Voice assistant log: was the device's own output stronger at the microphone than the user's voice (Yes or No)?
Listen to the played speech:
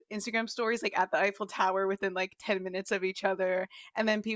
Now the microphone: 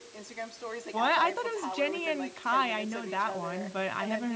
No